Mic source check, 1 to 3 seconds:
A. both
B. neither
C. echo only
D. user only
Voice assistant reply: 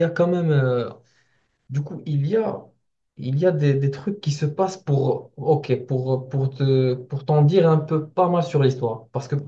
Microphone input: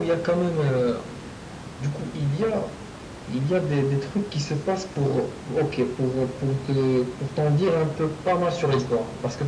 C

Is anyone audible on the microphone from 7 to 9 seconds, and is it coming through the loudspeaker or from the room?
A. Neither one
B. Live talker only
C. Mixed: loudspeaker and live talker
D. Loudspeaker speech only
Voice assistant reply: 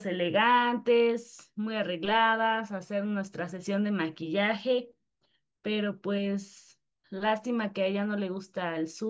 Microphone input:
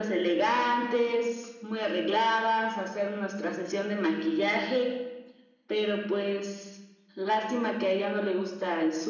D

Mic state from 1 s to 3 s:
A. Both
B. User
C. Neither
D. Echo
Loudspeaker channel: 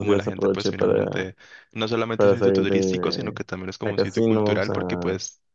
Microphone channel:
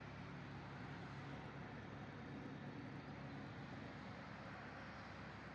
C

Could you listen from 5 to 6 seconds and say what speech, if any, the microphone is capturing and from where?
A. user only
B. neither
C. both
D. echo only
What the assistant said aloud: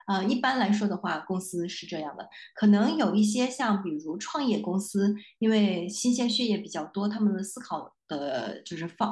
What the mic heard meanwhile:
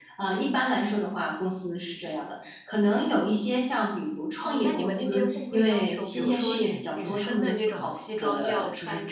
C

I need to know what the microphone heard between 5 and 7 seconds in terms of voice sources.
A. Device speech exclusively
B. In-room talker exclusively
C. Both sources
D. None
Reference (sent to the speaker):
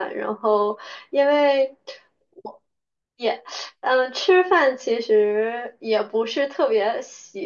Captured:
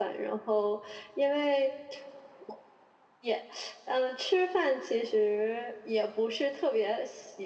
A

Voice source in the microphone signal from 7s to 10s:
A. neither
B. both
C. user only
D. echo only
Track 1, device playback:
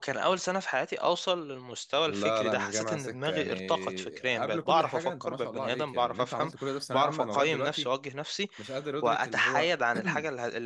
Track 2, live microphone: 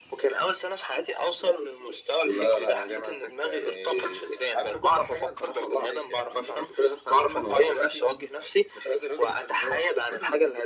D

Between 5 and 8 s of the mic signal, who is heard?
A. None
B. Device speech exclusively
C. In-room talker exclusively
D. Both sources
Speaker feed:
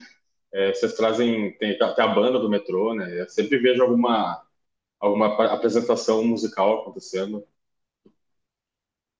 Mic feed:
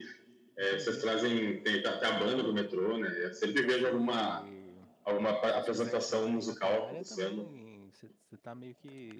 D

